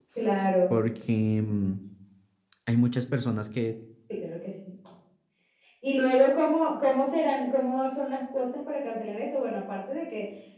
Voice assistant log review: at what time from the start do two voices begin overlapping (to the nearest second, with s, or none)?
none